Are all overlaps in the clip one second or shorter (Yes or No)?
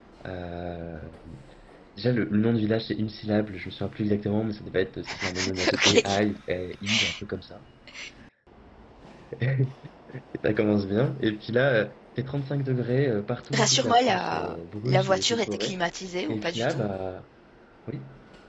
No